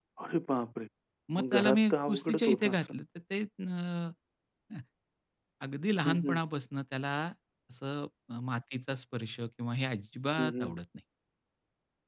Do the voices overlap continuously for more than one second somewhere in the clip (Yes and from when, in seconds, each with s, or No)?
Yes, from 1.4 s